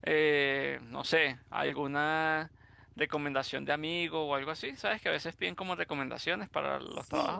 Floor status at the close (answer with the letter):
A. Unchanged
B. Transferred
B